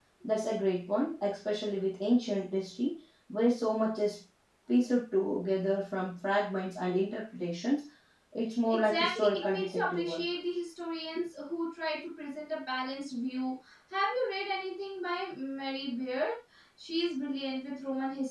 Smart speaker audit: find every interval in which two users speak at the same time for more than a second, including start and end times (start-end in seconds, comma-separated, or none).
8.7-10.2